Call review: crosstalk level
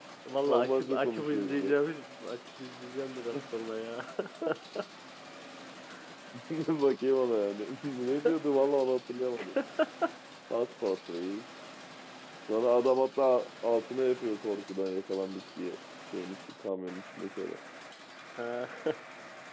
present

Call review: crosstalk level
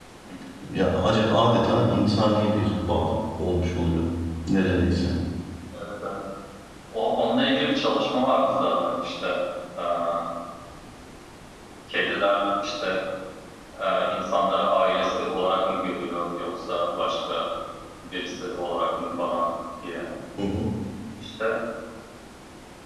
none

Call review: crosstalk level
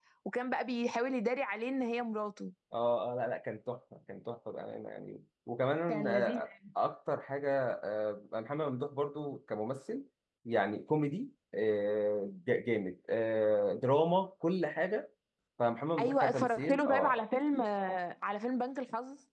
present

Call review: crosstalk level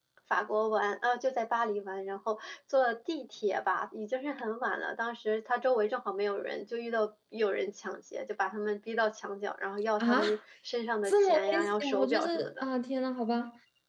present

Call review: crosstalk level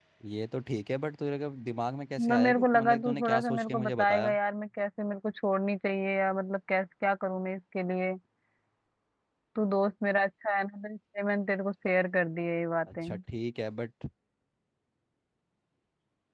present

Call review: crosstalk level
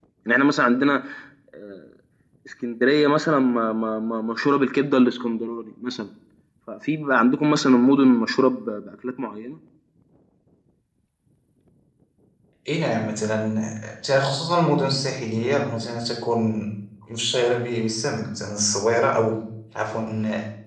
none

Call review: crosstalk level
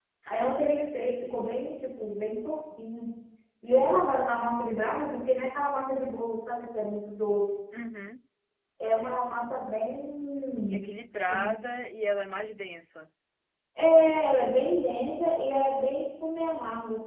present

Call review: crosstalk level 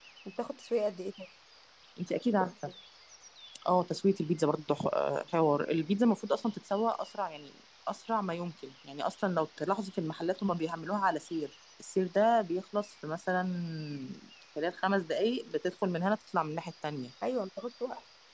none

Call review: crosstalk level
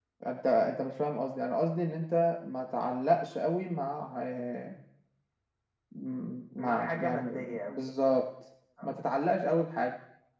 present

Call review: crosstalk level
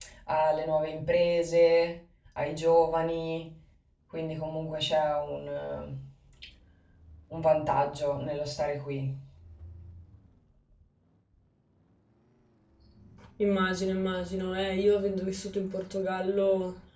none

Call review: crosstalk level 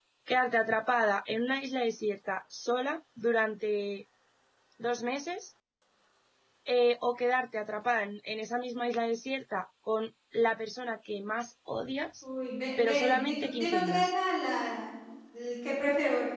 present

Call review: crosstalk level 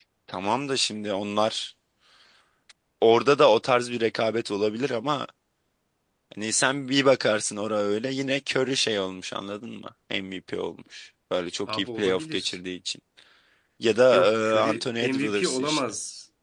present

